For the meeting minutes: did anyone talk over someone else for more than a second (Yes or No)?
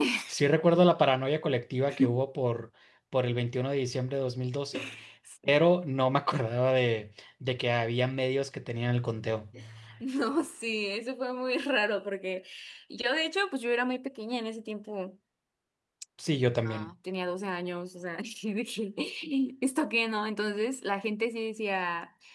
No